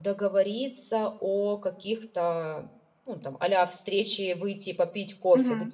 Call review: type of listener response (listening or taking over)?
taking over